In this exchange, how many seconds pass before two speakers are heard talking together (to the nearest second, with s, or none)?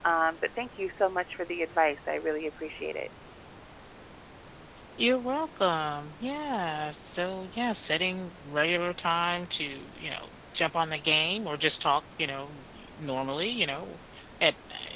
none